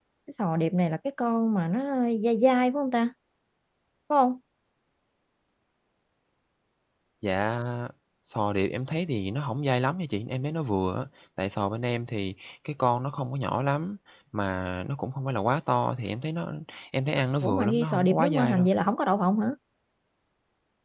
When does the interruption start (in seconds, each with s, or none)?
17.4 s